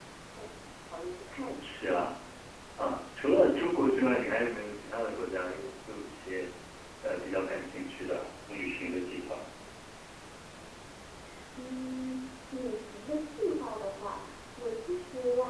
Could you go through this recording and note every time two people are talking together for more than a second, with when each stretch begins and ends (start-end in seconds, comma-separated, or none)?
none